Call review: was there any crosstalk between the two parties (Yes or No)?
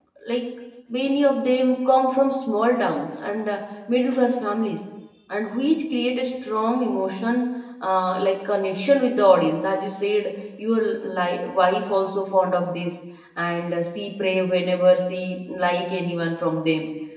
No